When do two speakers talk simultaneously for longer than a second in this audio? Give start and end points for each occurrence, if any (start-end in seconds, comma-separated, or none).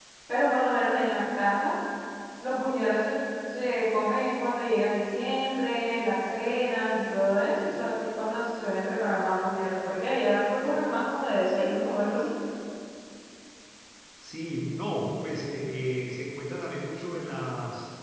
none